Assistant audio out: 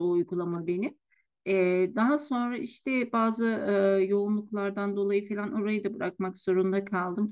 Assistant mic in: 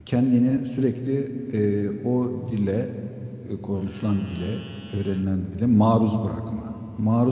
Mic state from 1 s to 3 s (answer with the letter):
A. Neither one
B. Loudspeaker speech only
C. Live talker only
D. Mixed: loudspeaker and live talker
C